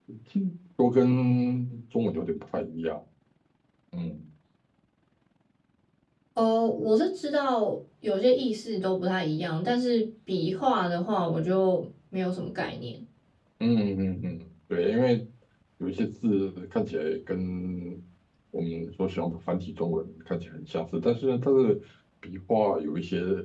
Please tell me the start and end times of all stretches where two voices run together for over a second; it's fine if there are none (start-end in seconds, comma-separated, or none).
none